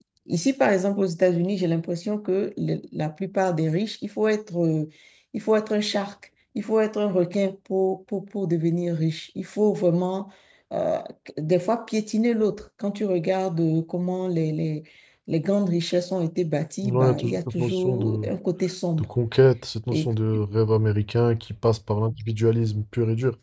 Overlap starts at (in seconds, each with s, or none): 16.8 s